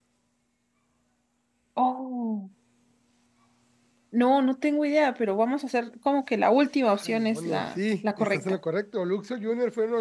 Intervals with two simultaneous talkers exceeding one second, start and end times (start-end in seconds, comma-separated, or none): 7.0-8.6